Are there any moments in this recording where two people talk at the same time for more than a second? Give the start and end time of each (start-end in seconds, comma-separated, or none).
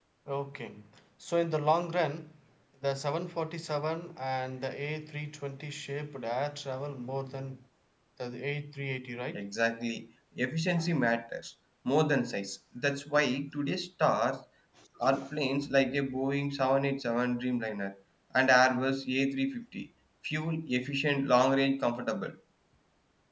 none